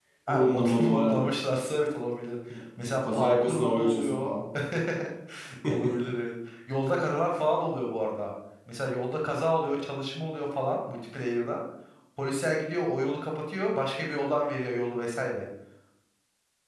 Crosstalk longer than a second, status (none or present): present